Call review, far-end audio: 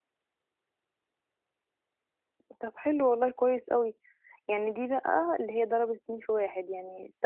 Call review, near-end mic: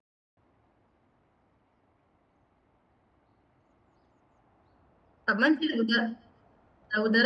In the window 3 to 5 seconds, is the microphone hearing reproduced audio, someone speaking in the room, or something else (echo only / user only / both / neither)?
neither